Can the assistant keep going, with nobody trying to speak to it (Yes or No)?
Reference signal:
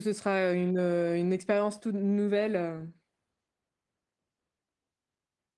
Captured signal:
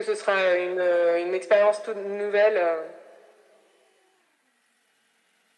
Yes